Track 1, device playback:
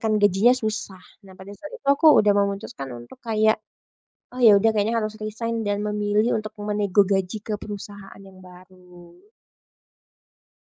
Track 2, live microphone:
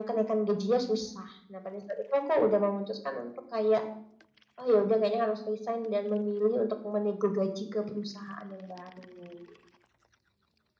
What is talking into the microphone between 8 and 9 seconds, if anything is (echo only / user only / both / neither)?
echo only